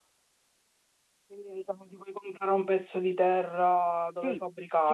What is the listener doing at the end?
taking over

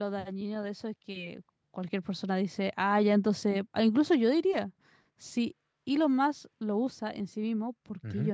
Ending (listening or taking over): taking over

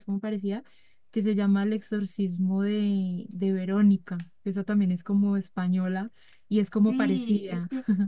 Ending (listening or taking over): taking over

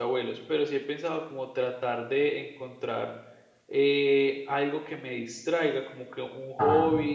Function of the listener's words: listening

